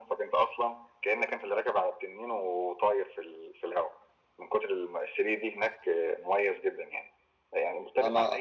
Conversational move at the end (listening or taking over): listening